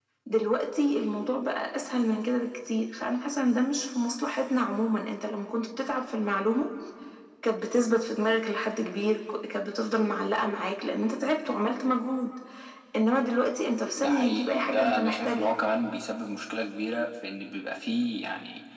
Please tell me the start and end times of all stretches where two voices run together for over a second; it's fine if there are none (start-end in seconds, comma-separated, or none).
14.0-15.5